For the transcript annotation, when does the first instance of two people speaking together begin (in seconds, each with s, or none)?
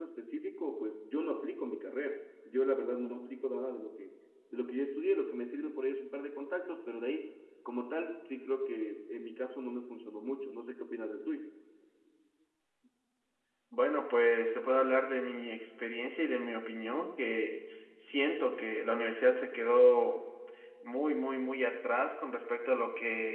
none